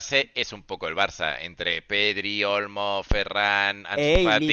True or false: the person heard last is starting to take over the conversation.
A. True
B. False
A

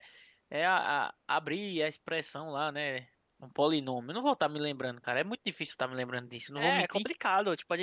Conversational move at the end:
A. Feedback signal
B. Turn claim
B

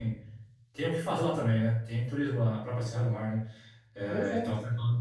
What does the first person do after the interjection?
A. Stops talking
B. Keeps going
B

